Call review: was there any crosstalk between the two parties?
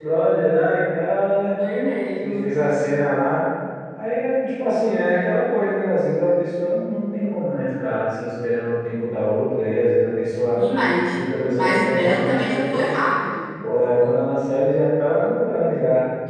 Yes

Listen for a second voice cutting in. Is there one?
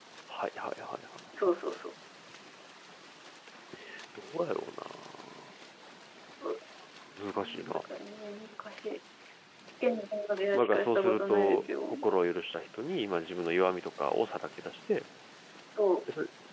Yes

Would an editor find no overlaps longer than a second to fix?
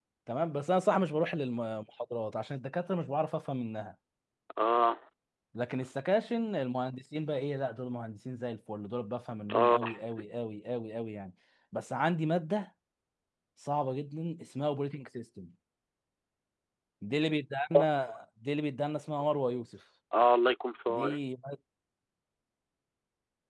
Yes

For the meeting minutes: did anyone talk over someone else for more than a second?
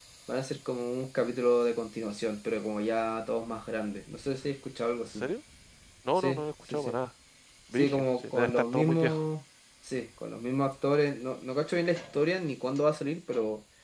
Yes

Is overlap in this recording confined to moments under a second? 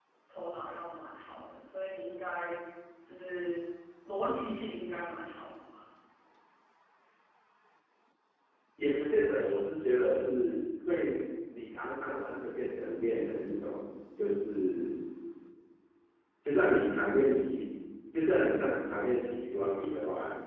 Yes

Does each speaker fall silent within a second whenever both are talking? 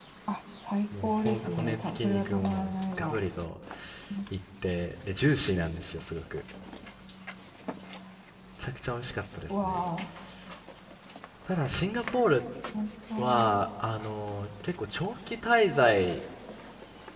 No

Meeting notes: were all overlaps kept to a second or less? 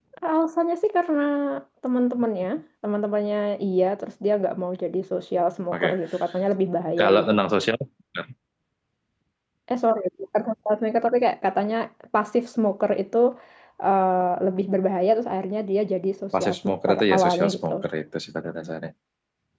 No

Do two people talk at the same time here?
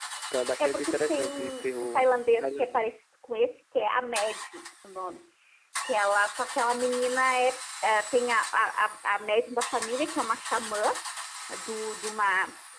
Yes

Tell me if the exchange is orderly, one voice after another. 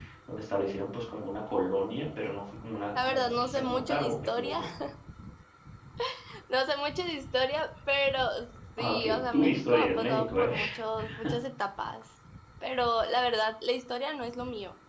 No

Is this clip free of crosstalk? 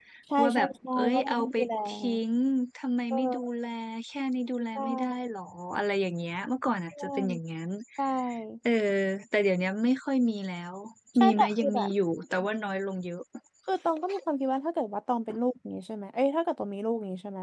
No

